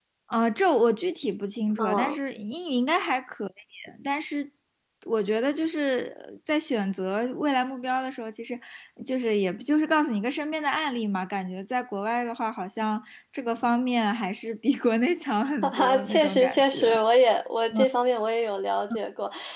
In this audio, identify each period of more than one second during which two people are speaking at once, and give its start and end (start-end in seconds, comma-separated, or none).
15.6-17.0